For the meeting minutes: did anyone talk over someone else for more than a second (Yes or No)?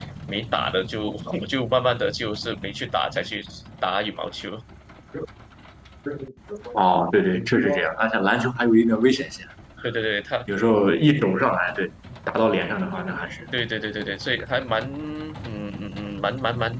No